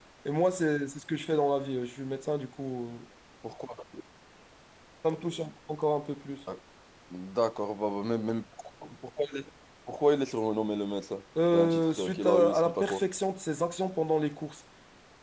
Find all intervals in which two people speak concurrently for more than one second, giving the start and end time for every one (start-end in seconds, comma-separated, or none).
11.5-13.0